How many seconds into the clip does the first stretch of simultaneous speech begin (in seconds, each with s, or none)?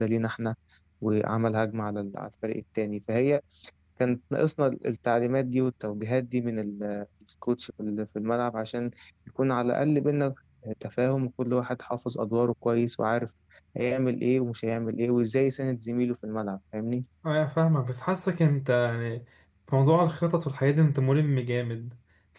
none